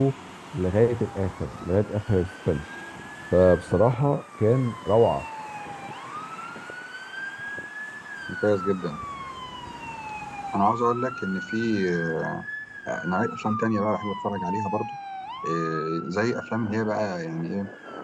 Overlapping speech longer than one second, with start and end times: none

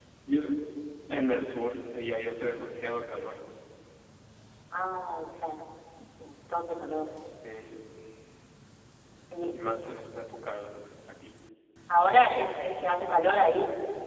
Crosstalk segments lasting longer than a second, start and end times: none

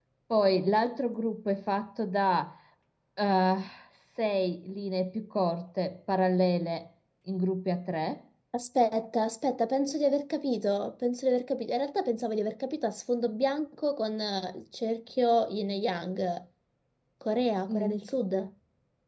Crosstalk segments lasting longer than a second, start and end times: none

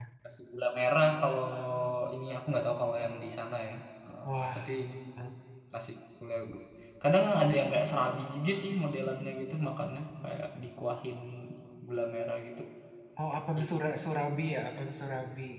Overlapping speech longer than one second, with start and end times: none

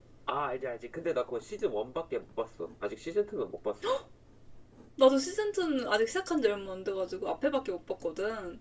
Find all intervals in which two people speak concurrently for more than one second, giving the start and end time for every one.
none

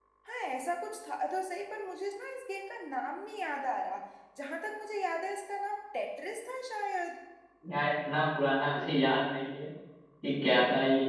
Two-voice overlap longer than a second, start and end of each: none

